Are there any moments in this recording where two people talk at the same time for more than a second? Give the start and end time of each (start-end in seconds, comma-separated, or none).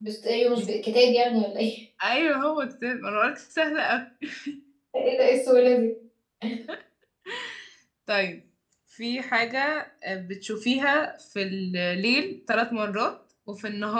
none